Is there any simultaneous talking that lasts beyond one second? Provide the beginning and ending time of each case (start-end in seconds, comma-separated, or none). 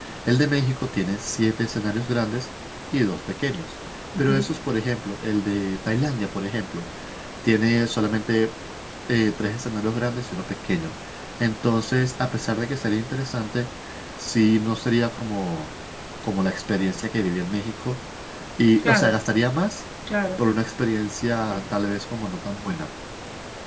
none